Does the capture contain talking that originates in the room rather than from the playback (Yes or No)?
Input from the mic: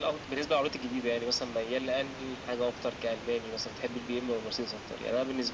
No